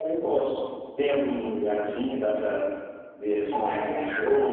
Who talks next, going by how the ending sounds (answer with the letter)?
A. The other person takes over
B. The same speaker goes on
B